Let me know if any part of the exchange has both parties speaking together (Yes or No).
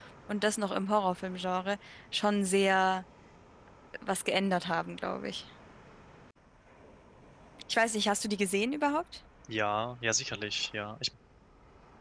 No